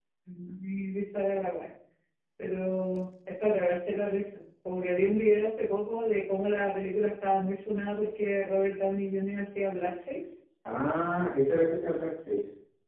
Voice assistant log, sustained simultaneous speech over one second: none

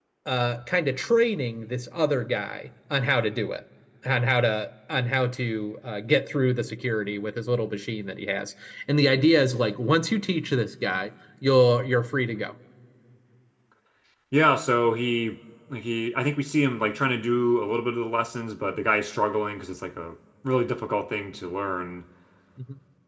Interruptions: none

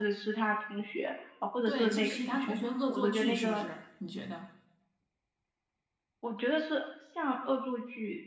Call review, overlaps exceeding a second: present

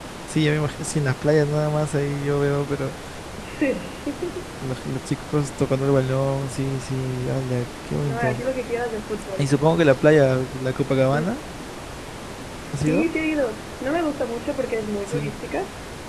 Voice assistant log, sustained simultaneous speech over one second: none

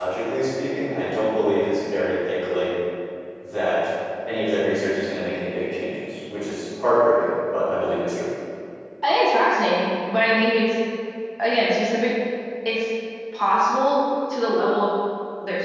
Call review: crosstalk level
none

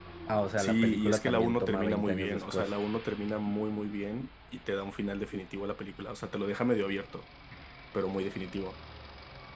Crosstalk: present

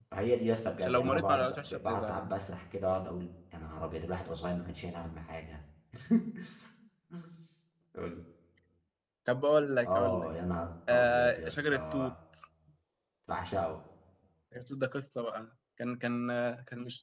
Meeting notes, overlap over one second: present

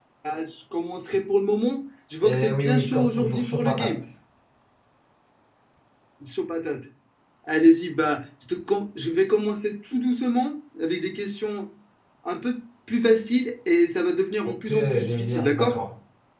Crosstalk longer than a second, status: present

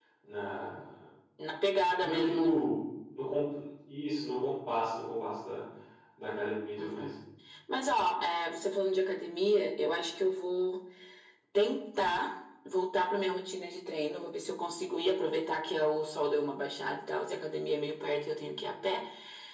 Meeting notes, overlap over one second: none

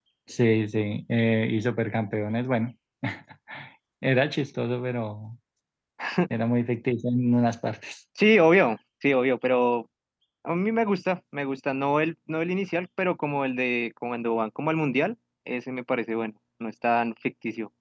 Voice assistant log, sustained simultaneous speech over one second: none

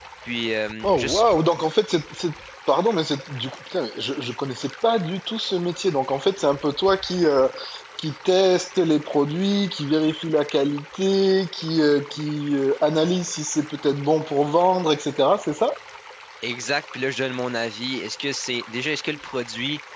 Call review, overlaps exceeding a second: none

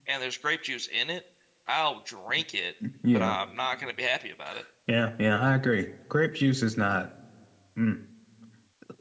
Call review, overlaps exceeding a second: none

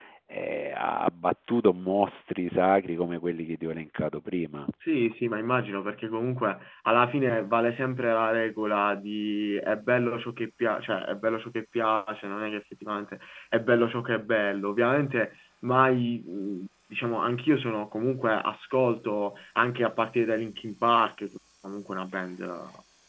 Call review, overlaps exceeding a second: none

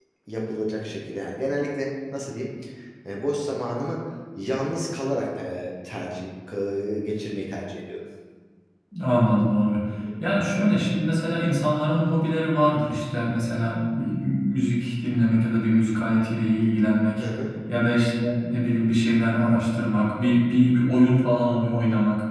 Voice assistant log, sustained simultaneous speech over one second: none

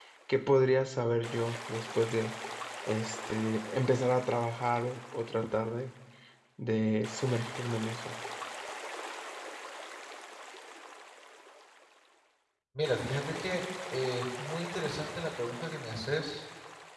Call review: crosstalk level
none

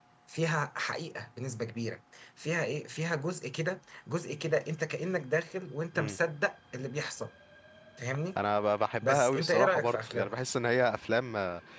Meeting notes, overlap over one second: present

